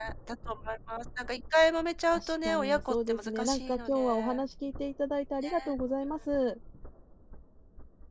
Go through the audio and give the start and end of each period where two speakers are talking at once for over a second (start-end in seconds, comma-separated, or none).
2.1-4.4